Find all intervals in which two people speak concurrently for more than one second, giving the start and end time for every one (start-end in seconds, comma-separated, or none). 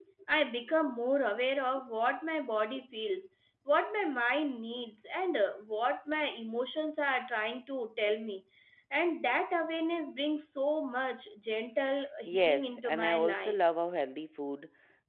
12.2-13.6